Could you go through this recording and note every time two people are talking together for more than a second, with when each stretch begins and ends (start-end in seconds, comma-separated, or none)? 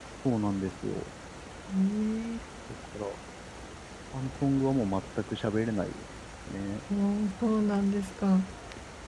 none